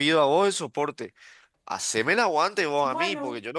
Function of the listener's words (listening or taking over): listening